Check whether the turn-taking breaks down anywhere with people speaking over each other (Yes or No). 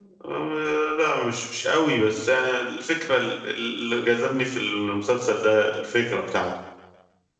No